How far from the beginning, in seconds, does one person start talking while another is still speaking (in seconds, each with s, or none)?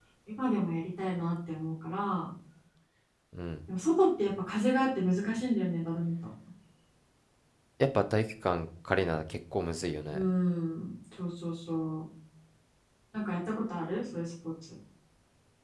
none